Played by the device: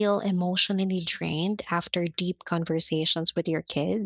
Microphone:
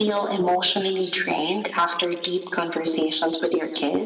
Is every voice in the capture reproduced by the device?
Yes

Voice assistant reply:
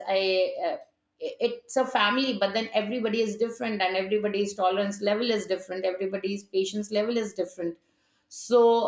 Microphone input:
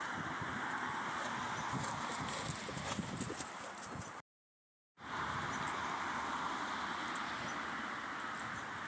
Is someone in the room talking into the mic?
No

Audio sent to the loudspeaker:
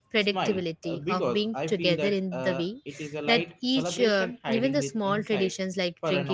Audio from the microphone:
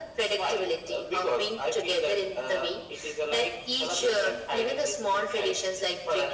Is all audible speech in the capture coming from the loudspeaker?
Yes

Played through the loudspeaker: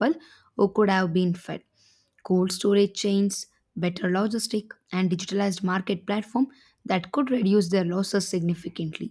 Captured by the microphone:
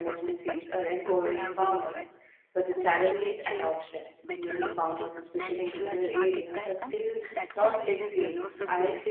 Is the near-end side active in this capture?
Yes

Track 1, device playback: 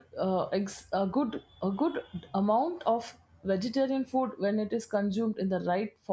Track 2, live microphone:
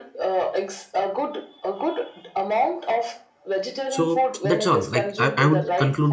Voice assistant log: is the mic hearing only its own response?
No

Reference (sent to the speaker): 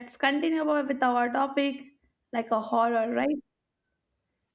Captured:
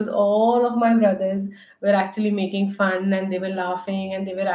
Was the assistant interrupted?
Yes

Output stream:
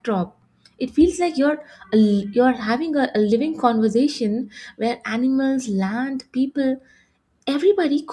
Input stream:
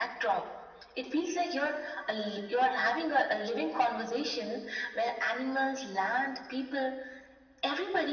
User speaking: No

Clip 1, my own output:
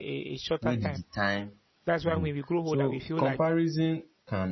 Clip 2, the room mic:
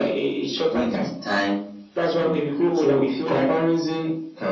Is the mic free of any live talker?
Yes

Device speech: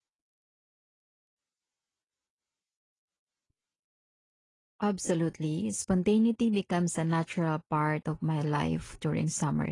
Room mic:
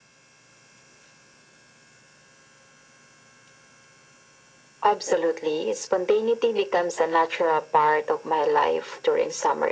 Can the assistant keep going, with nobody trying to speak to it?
Yes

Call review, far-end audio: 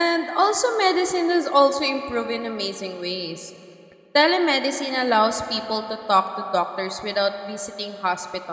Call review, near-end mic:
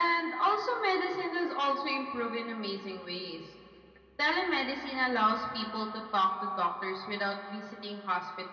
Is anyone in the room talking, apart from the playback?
No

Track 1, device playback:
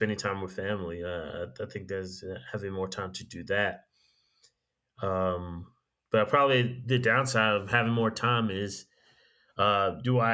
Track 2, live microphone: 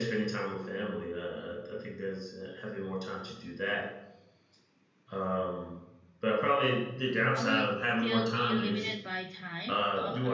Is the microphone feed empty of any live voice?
No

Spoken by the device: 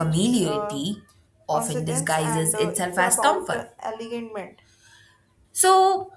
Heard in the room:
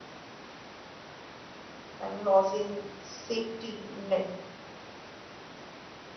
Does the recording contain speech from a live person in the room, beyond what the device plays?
Yes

